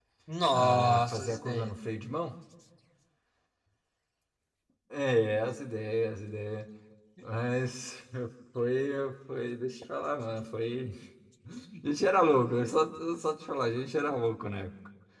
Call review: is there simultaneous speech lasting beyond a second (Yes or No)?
Yes